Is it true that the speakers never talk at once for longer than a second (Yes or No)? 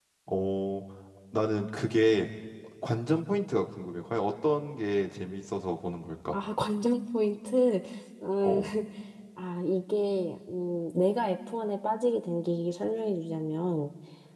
Yes